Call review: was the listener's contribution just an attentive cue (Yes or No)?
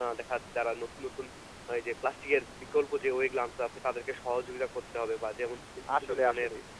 Yes